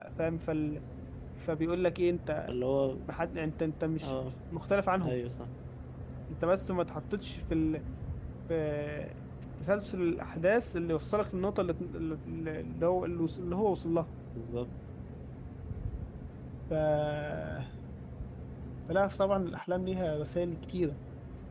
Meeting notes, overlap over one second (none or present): none